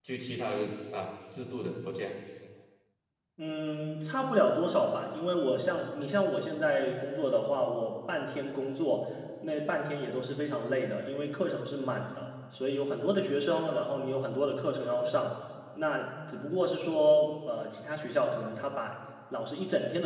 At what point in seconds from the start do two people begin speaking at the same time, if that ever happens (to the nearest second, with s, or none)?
none